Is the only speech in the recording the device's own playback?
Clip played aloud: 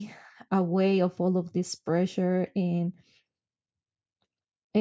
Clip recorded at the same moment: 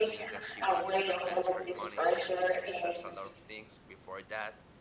No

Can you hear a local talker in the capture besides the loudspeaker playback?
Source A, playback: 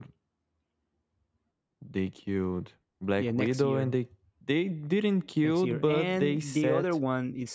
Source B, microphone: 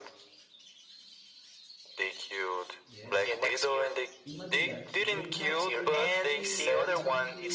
Yes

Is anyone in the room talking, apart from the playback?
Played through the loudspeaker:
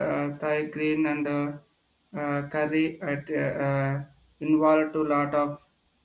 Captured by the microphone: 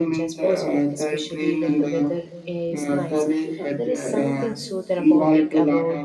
Yes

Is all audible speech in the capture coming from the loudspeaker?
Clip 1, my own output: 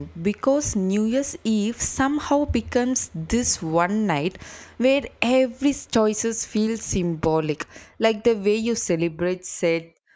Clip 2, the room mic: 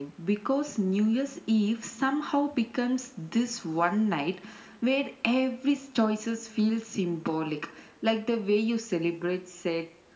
Yes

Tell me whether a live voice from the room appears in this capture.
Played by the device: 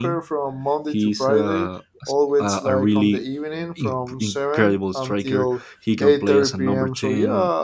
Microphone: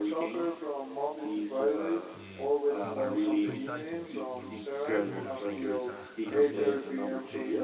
Yes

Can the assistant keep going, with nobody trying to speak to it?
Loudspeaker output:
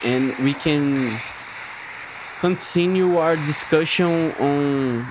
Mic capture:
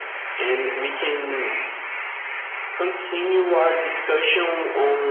Yes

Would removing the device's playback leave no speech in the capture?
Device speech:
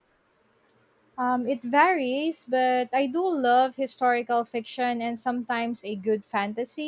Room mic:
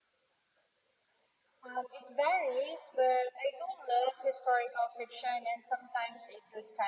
Yes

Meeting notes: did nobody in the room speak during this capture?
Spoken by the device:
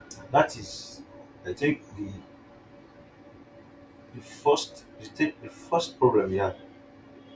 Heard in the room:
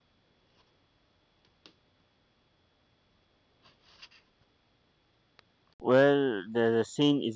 No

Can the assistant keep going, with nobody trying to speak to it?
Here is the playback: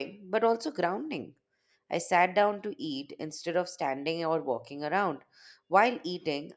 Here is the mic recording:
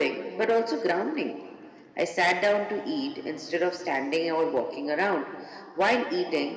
Yes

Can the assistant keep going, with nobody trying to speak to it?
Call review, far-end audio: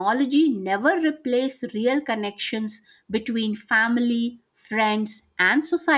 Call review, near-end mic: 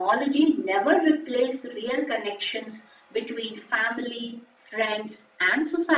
Yes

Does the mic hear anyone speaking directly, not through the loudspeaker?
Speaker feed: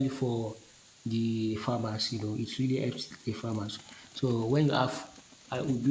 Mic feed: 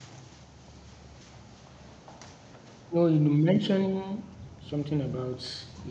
Yes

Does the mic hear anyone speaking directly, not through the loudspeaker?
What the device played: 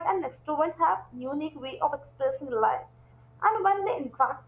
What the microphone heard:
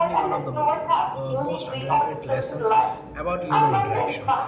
Yes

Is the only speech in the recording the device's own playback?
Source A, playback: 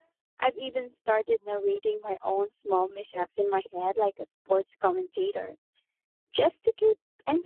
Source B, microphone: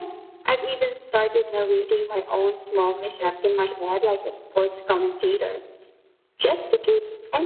Yes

